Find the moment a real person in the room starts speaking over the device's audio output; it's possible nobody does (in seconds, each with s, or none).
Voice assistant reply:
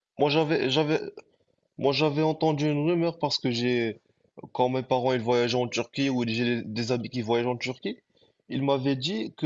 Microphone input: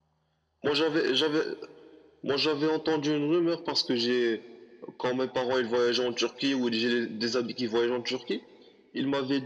none